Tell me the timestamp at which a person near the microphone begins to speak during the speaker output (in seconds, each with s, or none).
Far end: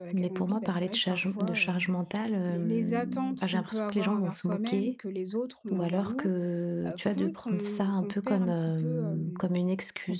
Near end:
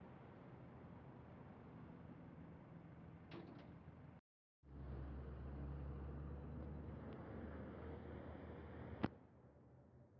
none